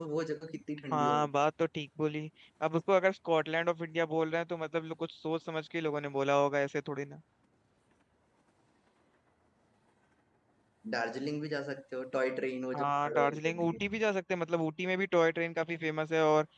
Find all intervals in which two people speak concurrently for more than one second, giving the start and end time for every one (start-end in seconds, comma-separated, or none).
12.8-14.0